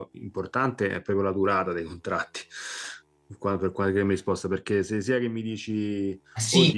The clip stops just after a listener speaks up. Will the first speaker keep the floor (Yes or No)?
No